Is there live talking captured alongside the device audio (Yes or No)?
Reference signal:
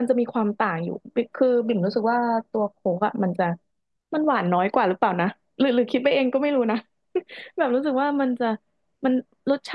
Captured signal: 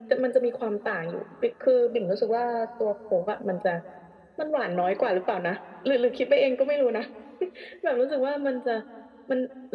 No